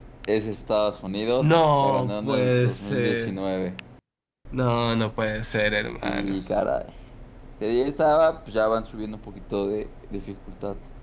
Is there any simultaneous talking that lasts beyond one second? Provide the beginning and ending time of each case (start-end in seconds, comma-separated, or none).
1.4-3.4